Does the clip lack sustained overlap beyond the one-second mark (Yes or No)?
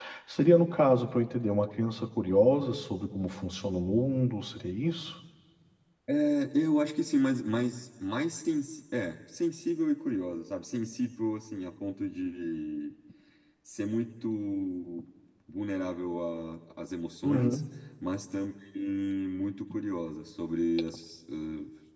Yes